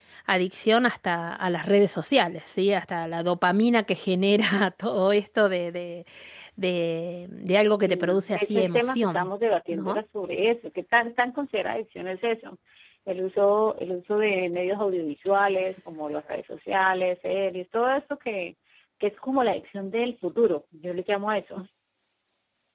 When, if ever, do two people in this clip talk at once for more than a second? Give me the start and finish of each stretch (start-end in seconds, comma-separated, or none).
7.8-9.3